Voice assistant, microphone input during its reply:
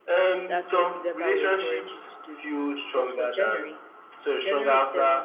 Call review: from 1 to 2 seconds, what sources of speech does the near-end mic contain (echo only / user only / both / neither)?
both